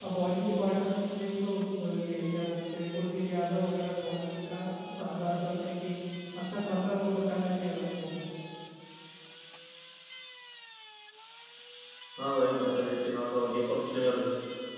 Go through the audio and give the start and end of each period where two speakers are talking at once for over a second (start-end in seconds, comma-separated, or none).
none